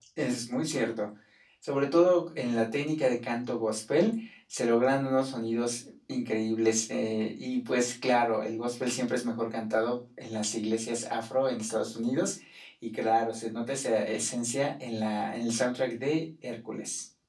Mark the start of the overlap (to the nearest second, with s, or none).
none